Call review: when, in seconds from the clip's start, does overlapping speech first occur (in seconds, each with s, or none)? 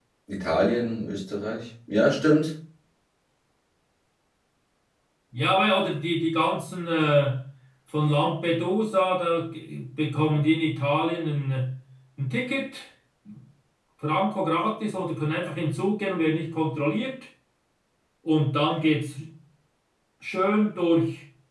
none